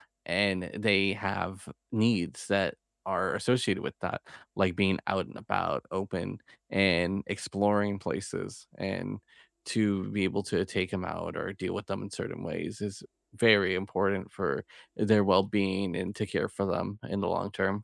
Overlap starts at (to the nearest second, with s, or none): none